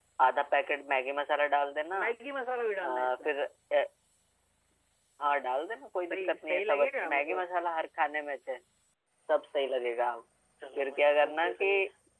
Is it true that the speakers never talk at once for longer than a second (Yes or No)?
No